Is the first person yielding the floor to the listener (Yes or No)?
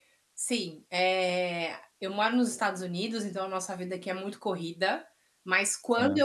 No